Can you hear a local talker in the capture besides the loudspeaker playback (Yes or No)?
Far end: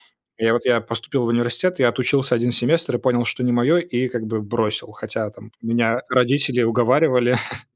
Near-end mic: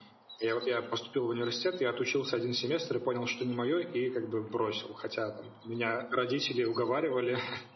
No